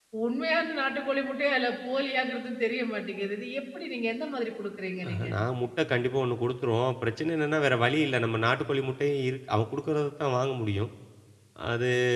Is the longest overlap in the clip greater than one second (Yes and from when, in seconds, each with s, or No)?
No